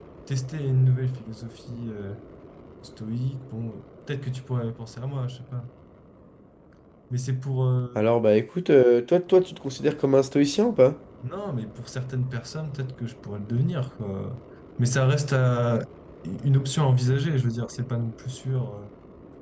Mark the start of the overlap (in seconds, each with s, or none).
none